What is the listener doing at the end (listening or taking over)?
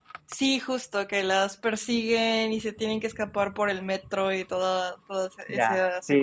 taking over